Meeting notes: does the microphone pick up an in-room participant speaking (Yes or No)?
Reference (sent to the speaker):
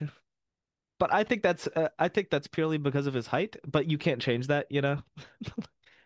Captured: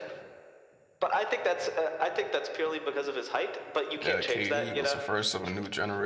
Yes